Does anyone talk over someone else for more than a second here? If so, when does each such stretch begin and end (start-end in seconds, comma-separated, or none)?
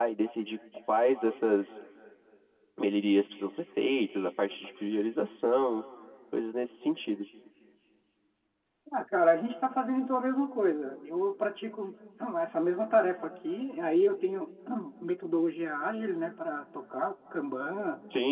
none